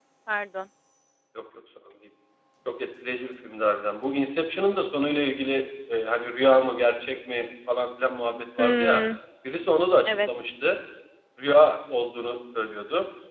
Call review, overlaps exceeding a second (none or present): none